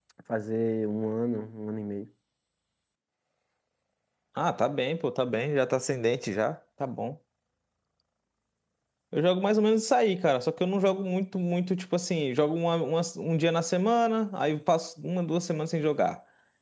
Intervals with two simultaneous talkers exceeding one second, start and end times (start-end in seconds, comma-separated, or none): none